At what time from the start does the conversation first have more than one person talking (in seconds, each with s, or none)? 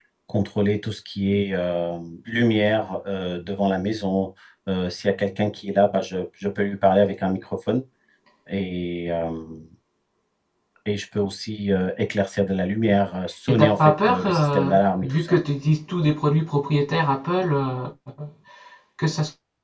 13.5 s